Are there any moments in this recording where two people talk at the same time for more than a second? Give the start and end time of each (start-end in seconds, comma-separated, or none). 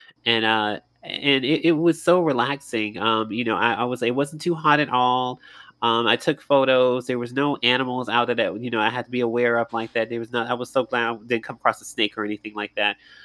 none